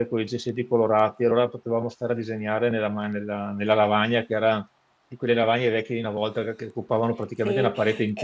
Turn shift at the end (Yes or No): Yes